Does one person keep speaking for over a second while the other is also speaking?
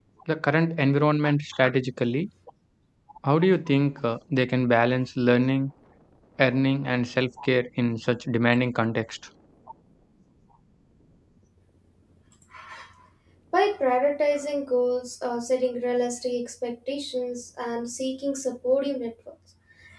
No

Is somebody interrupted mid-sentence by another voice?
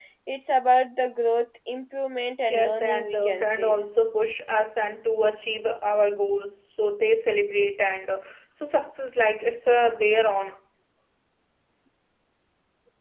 Yes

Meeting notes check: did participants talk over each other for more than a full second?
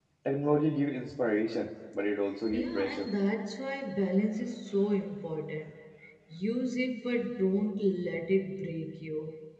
No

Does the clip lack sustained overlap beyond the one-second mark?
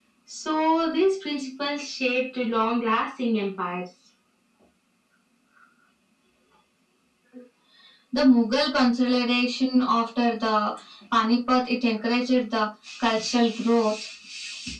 Yes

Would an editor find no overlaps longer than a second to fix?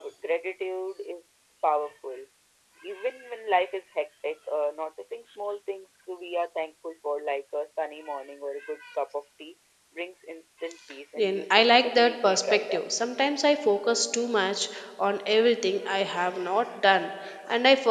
No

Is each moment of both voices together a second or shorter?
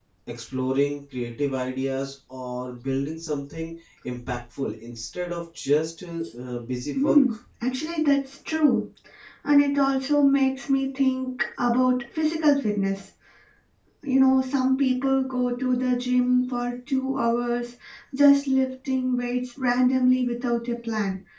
Yes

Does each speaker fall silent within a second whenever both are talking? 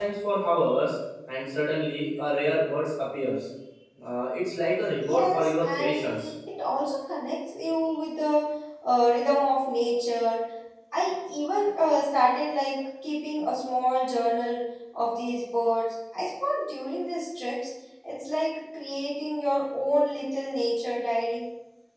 No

